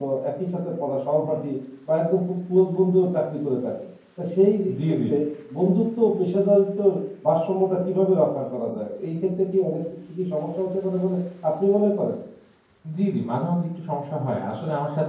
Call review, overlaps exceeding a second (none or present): none